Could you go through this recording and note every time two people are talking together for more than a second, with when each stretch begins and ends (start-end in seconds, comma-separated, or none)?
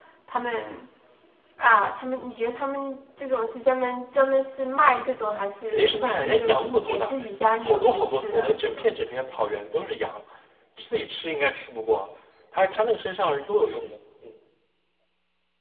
5.7-7.2, 7.6-8.9